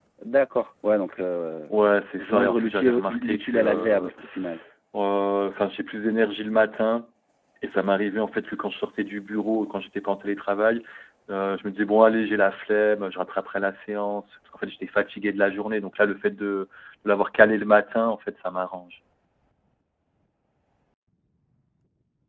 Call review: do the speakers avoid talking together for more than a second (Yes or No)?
No